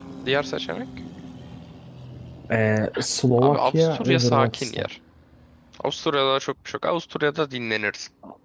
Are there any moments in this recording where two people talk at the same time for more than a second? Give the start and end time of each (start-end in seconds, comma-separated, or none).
3.4-4.9